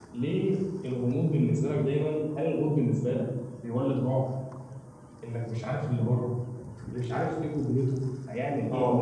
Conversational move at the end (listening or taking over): taking over